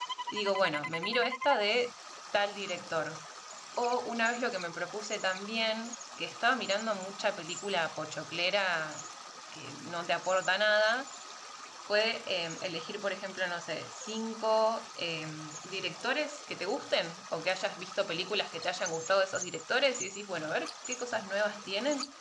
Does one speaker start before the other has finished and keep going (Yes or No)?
No